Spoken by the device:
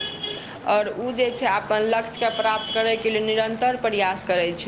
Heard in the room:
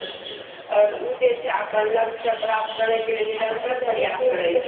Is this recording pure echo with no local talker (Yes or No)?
No